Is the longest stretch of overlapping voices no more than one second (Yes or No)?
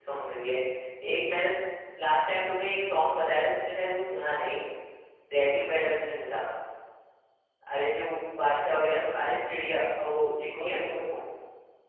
Yes